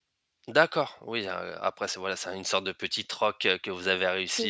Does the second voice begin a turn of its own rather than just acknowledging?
Yes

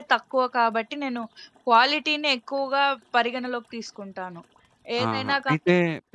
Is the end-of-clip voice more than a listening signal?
Yes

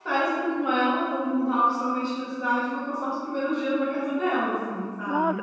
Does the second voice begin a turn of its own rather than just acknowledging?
Yes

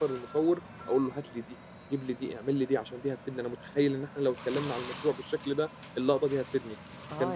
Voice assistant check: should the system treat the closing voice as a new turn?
Yes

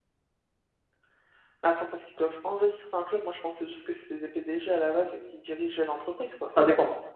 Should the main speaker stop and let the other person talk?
Yes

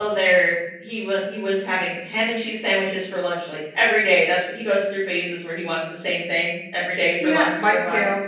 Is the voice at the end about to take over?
Yes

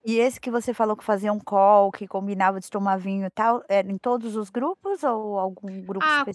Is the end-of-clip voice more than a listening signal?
Yes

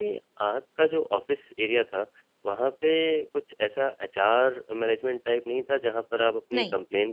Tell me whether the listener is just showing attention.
Yes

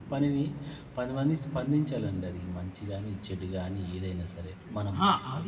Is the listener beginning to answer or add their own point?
Yes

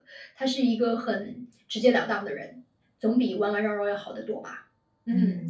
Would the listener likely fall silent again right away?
No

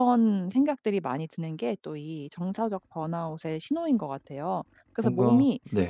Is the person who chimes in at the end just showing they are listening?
Yes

